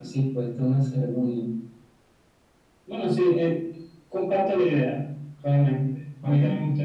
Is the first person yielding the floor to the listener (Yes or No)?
No